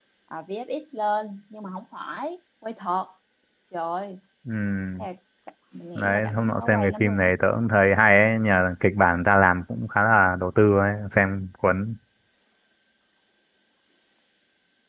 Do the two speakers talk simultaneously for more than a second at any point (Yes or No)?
Yes